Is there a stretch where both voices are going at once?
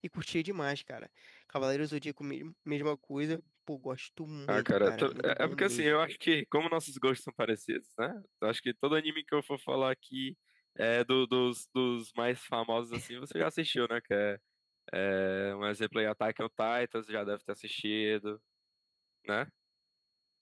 Yes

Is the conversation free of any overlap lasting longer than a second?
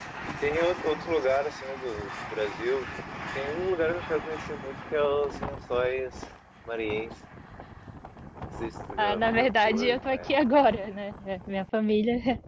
No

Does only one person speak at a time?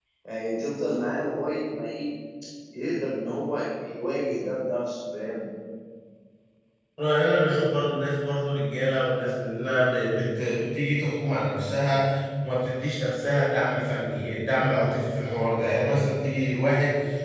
Yes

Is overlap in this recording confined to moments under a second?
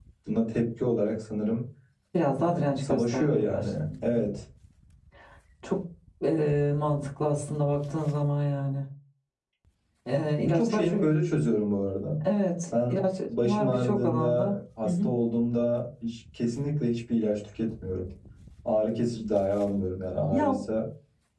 No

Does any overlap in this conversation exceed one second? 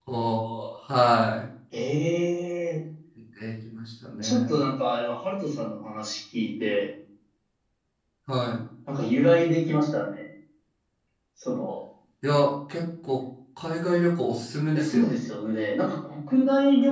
No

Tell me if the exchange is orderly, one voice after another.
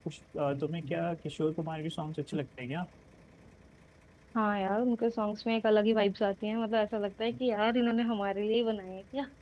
Yes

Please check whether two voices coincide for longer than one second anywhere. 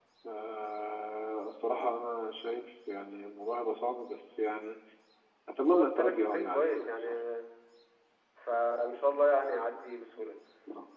Yes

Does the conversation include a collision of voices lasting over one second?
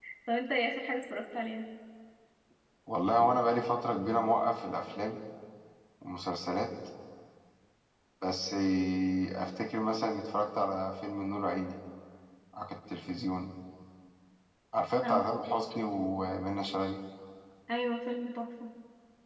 No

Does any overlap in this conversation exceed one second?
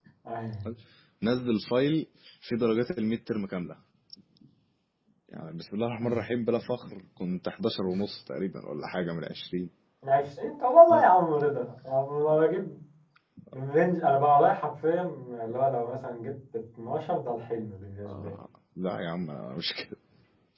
No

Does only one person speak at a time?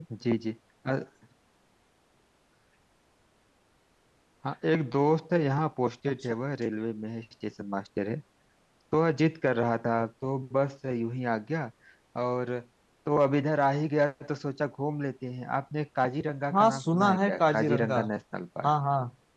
No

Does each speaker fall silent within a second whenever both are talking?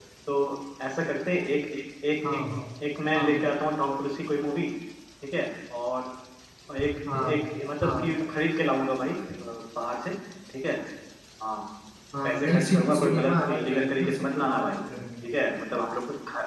No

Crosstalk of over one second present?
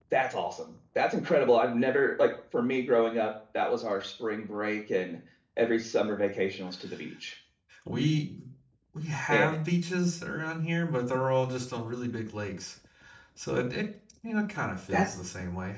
No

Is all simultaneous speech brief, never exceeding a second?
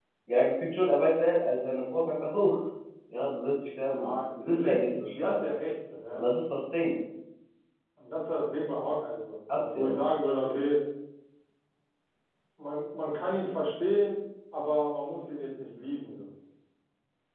No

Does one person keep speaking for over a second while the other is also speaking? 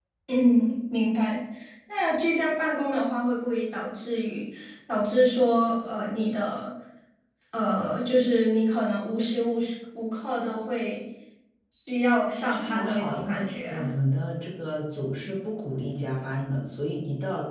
Yes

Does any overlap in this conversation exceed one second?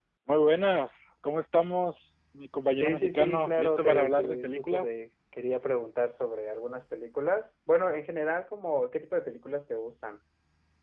Yes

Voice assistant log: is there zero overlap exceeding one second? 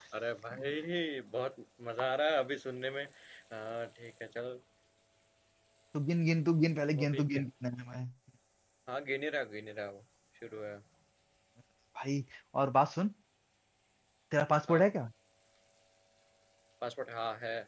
Yes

